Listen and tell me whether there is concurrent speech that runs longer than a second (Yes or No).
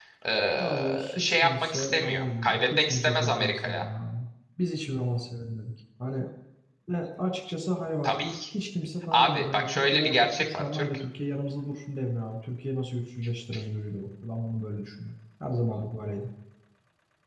Yes